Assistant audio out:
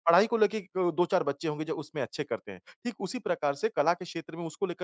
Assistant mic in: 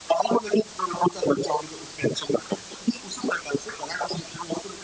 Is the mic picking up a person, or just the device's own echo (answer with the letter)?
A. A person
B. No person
B